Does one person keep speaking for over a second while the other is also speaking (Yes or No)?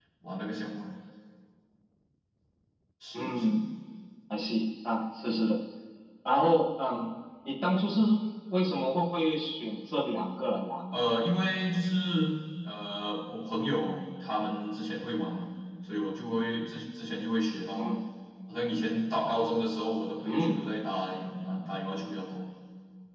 No